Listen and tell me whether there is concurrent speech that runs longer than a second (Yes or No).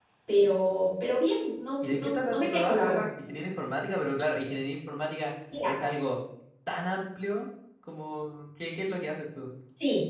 Yes